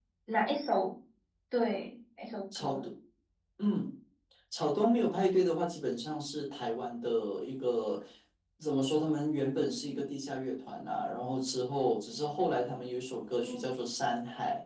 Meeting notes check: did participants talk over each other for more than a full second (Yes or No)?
No